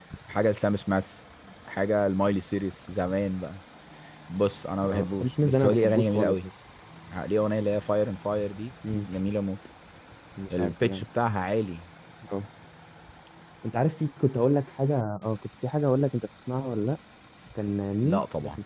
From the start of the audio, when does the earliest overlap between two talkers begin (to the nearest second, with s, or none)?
5 s